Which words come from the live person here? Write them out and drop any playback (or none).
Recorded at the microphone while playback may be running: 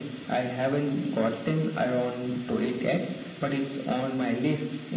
none